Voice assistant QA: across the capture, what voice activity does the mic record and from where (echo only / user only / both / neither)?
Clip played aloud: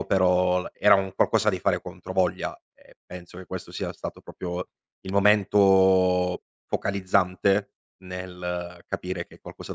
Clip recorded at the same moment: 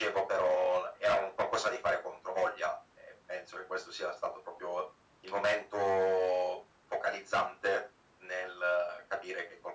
echo only